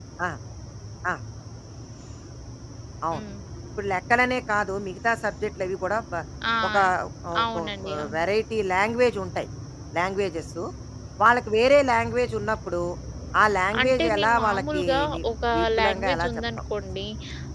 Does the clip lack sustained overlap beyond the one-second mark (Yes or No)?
No